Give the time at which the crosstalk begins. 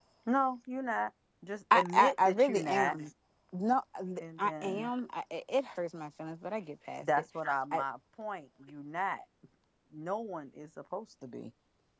1.7 s

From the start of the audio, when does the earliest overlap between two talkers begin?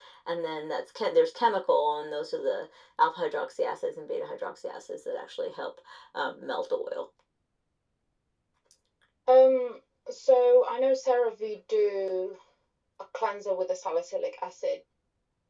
none

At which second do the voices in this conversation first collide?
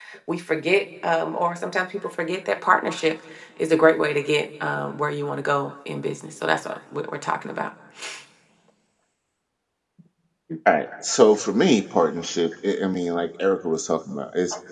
none

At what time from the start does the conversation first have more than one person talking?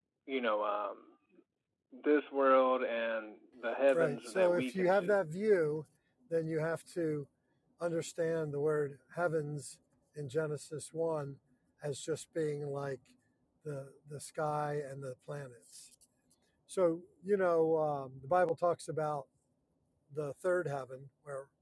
3.9 s

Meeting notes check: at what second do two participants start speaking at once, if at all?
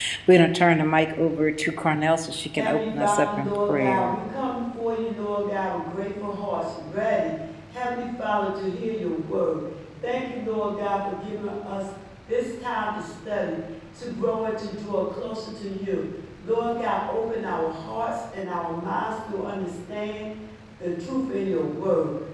2.5 s

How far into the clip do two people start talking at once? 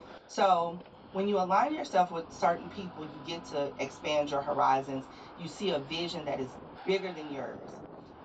none

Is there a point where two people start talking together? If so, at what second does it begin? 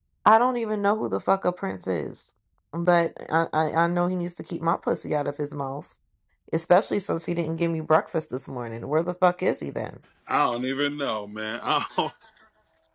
none

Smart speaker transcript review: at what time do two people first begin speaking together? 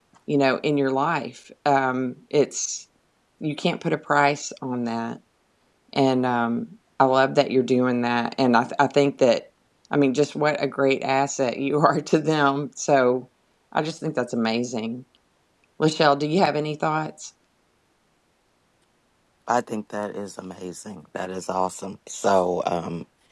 none

